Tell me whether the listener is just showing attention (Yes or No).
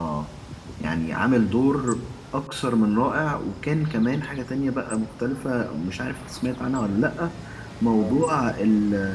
Yes